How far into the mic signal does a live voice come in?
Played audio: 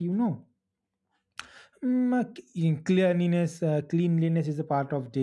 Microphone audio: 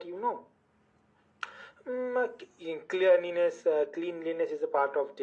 none

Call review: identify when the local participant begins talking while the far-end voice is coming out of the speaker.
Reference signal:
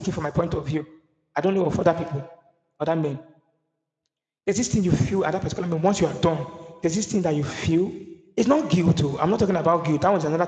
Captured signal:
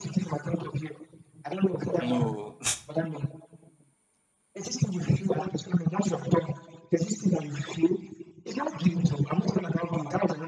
2 s

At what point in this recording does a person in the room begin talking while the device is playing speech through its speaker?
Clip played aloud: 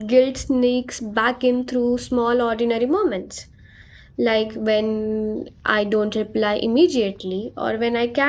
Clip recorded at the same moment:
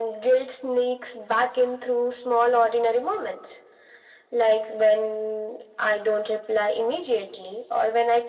none

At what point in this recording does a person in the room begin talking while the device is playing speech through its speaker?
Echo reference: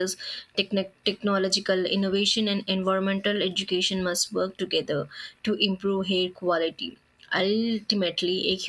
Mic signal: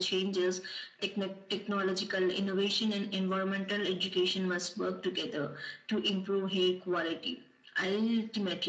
none

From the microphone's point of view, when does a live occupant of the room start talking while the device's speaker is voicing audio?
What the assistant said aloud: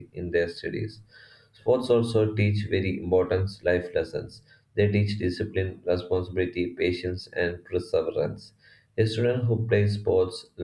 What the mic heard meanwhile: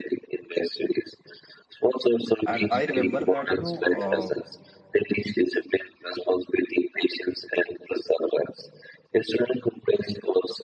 2 s

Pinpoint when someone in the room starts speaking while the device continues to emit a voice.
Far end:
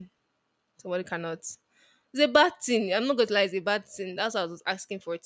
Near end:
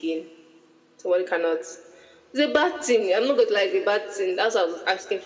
none

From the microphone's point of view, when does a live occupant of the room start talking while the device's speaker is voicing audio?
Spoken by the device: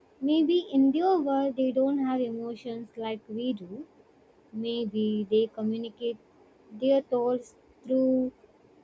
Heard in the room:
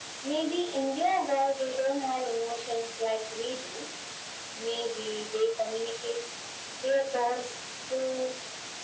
none

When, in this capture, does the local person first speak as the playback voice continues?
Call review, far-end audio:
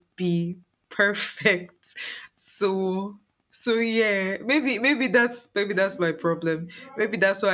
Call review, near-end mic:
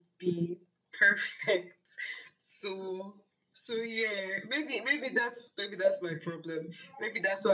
none

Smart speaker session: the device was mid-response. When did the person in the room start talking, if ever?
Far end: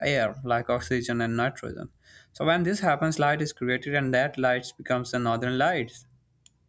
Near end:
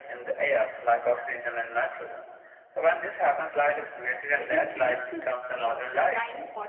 4 s

